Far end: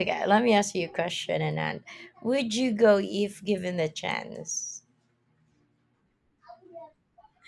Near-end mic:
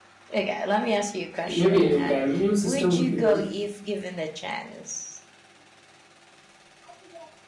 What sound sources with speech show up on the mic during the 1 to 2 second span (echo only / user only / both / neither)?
both